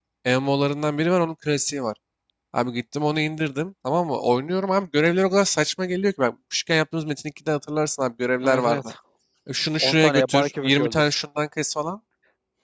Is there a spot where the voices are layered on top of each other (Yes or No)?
Yes